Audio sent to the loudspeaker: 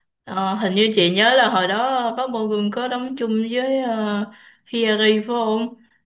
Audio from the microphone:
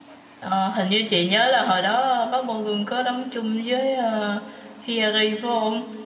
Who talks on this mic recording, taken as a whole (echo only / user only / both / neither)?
echo only